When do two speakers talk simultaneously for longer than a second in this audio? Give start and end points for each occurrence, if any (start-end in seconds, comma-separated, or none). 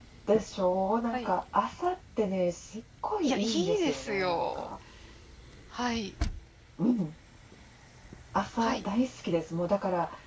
3.2-4.7